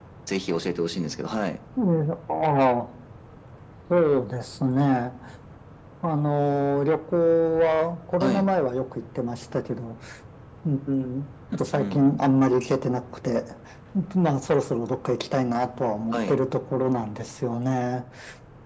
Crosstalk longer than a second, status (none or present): none